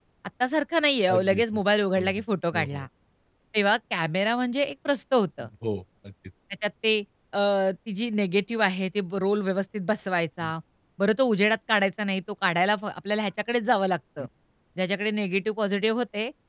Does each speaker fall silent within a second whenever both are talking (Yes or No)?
Yes